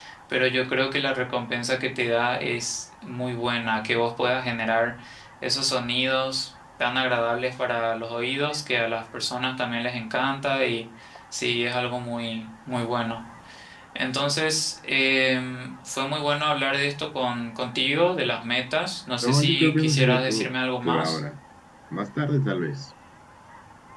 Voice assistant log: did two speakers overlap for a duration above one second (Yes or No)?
Yes